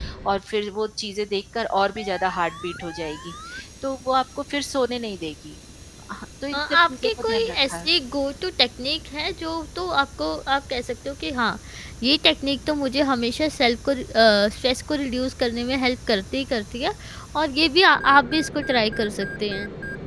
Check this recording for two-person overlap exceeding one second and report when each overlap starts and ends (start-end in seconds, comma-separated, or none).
6.5-7.9